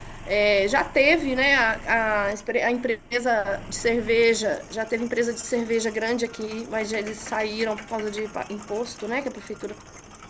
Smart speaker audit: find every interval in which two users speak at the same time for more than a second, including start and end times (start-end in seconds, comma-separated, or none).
none